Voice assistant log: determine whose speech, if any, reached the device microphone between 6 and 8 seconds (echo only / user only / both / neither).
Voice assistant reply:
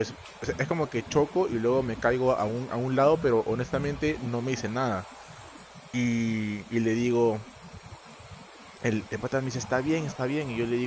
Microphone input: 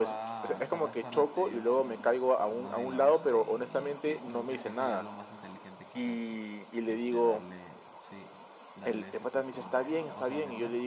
both